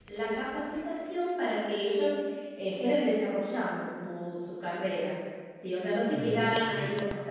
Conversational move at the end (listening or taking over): listening